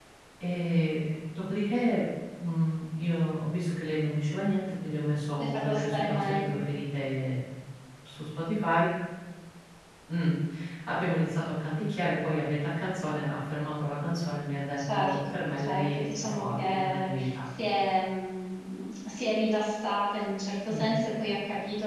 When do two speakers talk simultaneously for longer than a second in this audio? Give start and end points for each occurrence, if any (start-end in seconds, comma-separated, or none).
5.4-6.6, 14.8-17.3